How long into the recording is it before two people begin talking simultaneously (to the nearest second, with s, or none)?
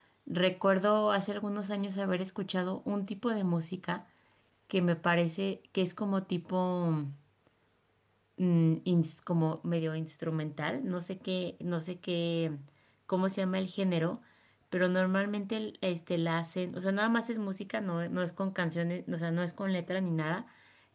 none